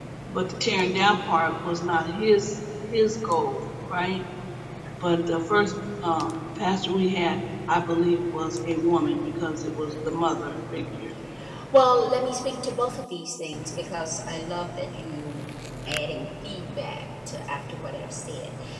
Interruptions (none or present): none